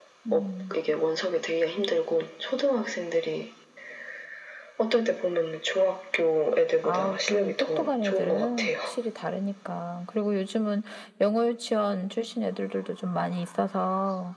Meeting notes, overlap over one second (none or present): present